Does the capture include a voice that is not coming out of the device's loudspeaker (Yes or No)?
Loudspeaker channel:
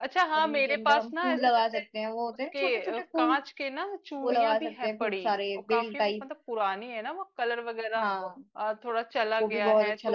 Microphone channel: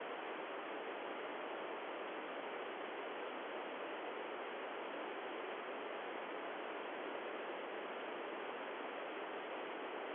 No